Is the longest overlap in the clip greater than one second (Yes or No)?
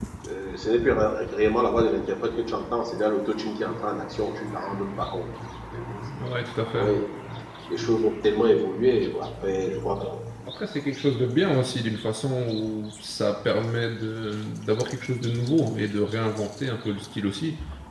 No